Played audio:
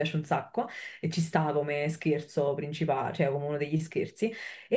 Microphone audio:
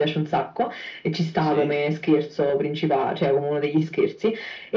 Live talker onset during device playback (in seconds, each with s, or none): 1.4 s